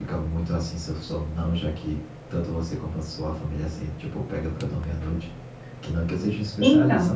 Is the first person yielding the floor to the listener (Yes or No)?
No